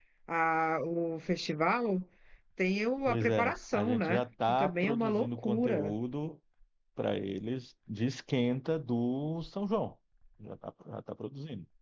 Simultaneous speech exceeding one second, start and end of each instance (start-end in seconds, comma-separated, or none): 3.1-5.9